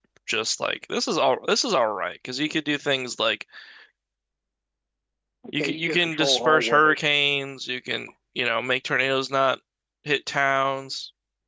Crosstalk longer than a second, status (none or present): present